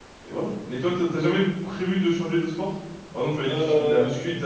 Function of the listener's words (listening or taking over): listening